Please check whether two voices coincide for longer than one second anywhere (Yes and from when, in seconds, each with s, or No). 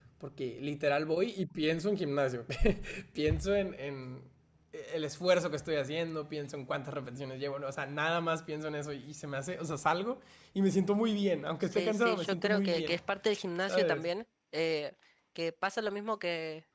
Yes, from 11.6 s